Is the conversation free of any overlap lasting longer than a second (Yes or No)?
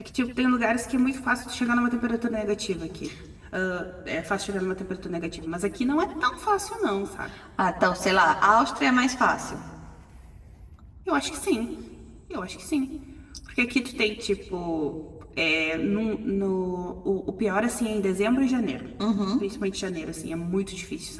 Yes